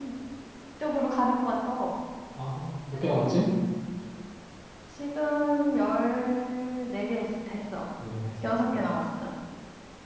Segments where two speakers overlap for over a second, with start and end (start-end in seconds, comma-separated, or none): none